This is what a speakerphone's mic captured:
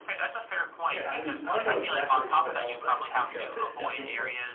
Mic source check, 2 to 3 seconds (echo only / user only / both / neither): both